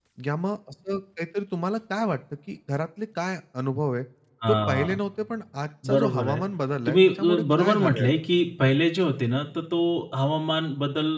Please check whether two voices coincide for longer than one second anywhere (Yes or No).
Yes